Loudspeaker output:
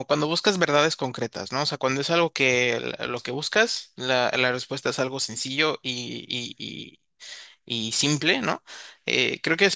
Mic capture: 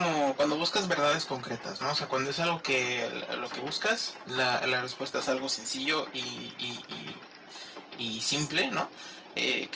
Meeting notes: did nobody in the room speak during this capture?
Yes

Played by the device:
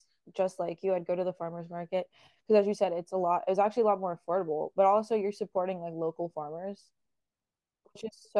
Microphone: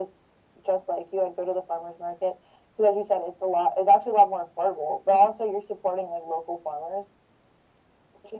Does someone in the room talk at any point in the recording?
No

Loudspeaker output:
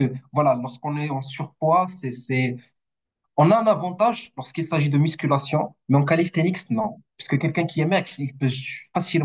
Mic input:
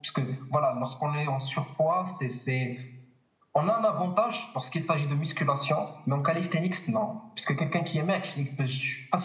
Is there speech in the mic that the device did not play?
No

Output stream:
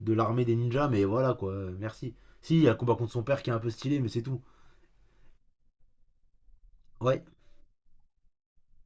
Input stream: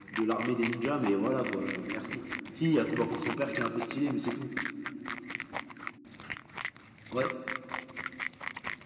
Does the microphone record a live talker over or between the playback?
No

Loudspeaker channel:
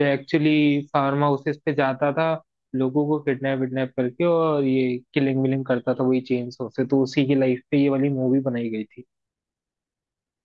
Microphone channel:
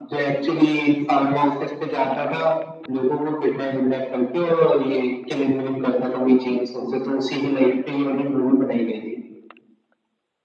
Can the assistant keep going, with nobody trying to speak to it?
Yes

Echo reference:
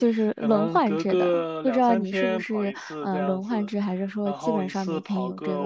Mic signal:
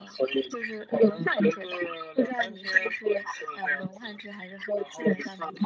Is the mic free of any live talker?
Yes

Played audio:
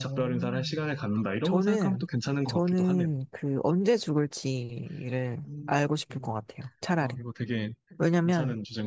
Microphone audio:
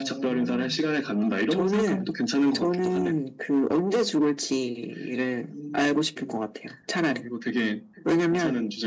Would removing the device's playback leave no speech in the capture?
Yes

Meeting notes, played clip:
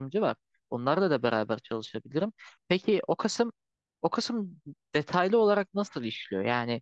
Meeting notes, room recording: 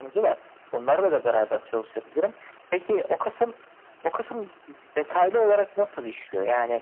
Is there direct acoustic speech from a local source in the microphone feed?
No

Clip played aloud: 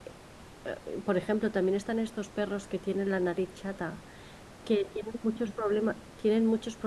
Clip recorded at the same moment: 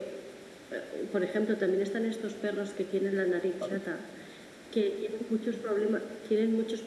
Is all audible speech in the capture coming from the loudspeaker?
No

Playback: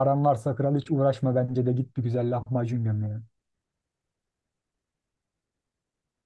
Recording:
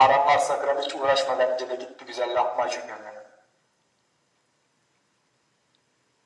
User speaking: No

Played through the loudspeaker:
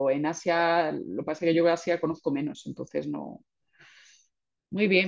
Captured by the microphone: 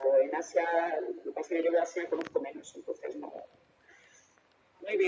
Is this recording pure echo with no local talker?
Yes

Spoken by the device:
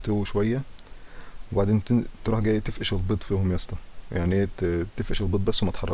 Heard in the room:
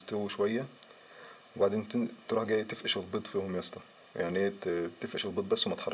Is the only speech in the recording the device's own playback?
Yes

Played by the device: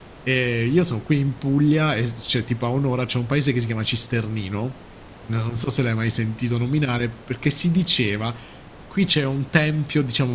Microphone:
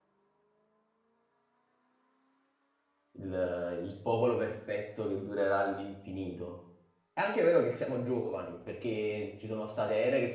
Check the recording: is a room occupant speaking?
Yes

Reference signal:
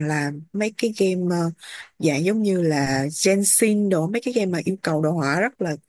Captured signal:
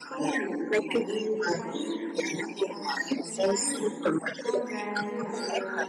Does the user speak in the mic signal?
Yes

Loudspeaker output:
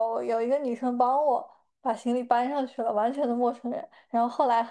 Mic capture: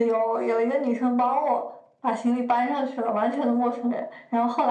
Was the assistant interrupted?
No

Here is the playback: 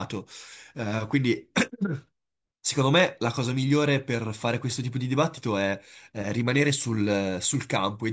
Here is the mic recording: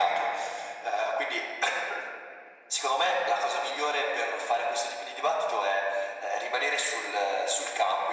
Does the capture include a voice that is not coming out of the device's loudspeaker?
No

